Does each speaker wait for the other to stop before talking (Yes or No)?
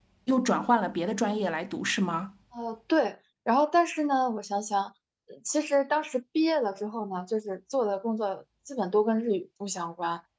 Yes